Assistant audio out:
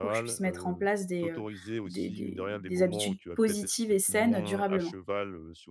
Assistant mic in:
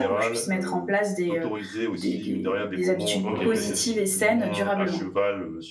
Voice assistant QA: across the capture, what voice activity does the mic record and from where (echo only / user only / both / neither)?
both